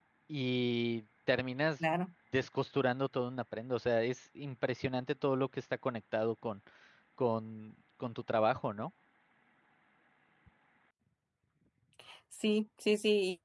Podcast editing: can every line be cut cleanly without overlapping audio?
Yes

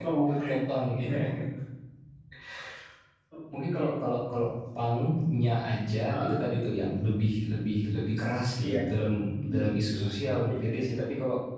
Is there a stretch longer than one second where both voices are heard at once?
No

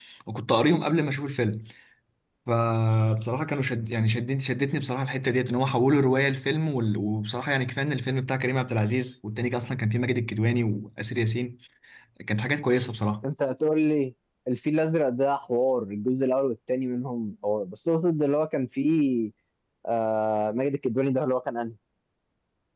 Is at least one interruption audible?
No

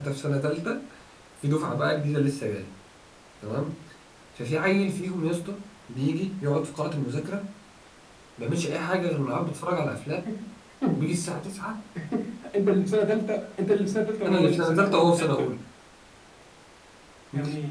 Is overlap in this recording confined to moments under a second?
No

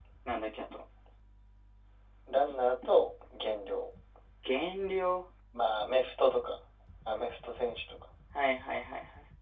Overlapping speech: No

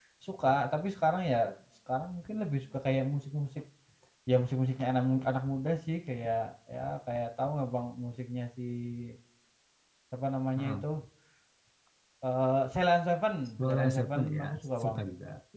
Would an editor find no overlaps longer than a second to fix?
No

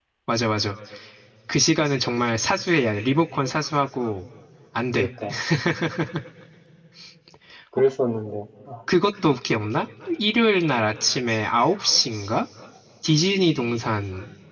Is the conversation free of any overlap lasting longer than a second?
Yes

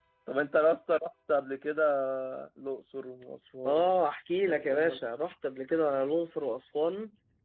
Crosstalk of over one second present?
No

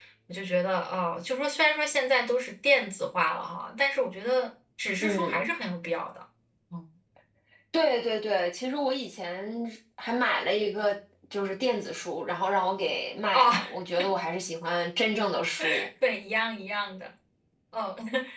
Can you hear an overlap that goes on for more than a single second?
No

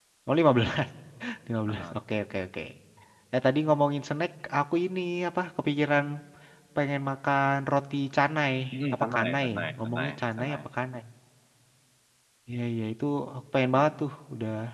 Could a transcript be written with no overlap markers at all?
No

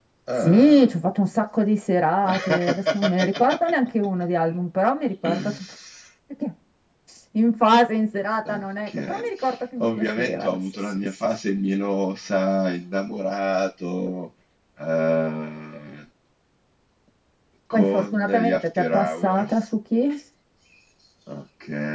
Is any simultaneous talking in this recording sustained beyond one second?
Yes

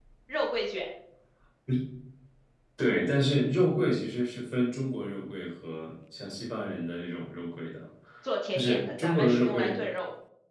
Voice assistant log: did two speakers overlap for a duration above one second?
Yes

